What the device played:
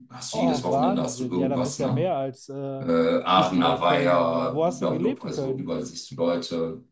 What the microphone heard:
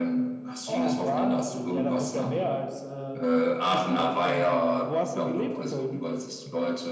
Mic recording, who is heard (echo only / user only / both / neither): echo only